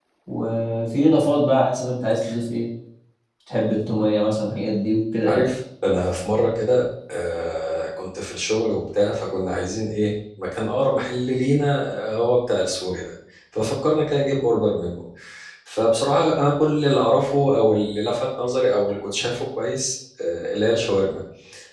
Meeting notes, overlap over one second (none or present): none